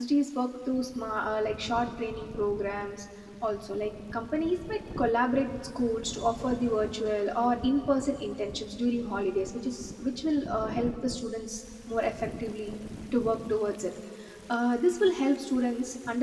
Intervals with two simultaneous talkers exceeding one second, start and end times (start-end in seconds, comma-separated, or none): none